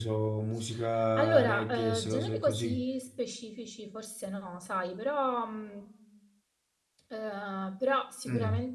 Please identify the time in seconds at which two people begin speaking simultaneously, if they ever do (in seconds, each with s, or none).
1.2 s